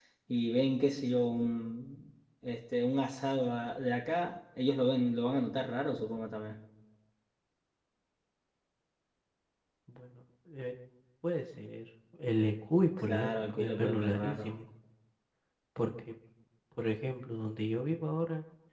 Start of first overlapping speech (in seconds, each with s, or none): 13.0 s